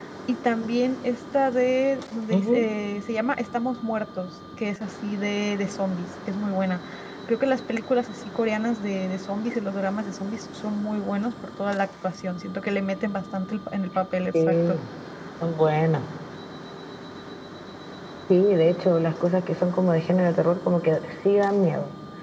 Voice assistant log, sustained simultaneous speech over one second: none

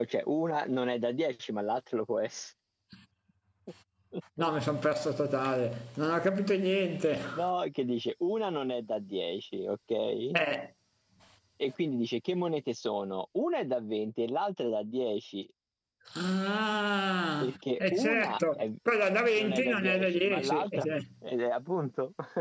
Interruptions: present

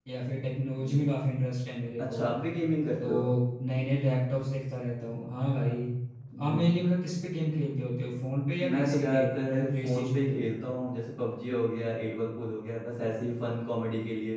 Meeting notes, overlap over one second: present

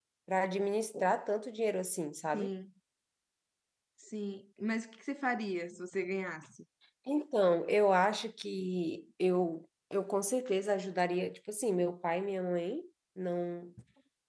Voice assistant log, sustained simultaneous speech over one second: none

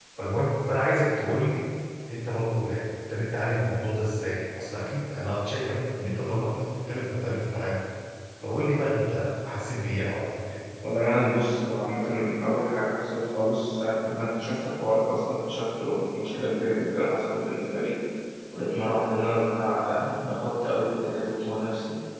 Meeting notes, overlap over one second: none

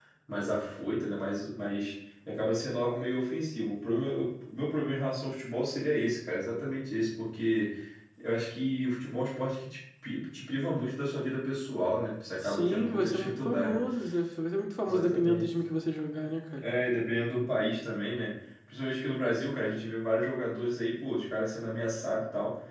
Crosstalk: present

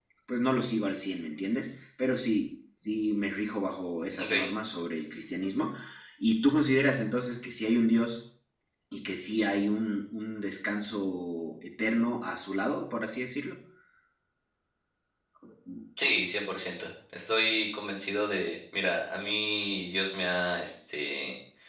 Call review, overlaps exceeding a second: none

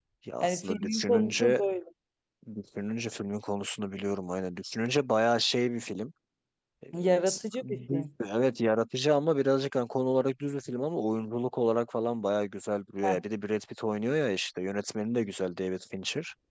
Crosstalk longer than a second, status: present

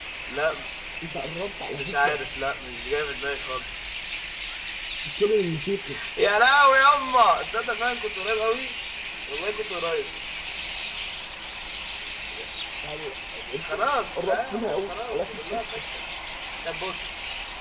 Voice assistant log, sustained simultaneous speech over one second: present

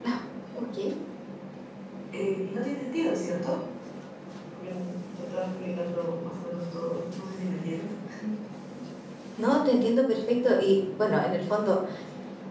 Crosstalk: none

